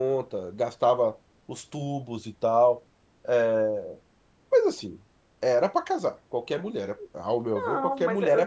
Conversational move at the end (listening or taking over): taking over